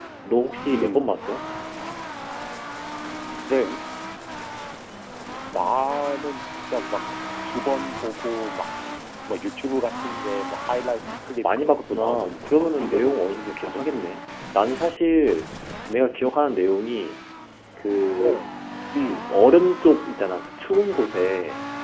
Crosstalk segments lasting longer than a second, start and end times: 11.6-13.9

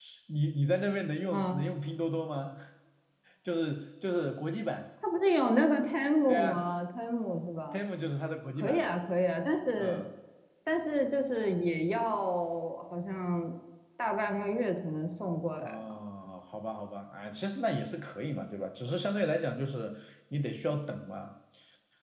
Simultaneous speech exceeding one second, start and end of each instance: none

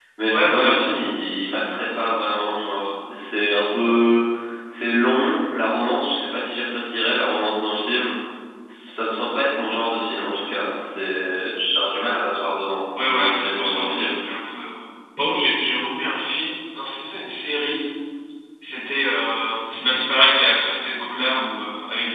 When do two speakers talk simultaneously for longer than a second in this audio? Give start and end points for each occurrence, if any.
13.0-14.2

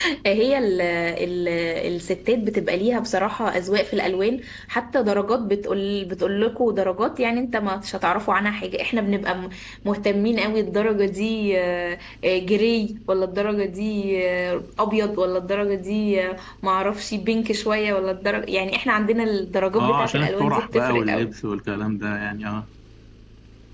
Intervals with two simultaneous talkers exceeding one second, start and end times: 19.8-21.3

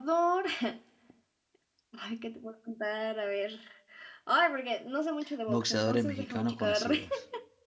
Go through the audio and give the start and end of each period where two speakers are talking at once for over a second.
5.5-6.9

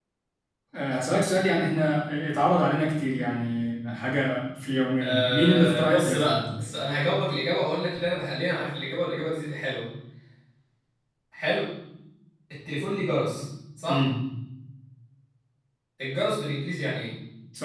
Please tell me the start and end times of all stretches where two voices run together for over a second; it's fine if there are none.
5.0-6.4

